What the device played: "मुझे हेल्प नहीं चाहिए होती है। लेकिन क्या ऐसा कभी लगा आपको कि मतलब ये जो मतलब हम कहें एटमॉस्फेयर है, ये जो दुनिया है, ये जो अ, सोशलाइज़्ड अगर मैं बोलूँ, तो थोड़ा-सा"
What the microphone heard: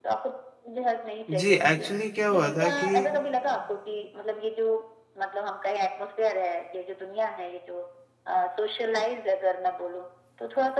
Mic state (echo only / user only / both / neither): both